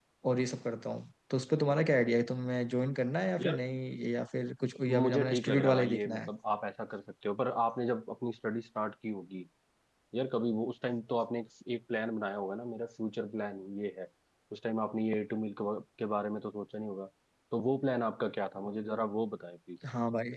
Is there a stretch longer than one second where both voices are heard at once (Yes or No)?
Yes